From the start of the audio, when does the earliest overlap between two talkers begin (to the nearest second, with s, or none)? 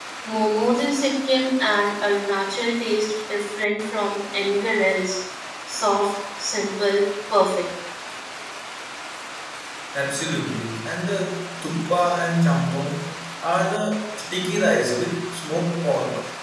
none